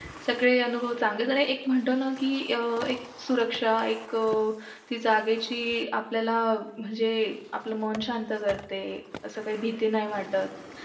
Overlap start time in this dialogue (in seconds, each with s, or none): none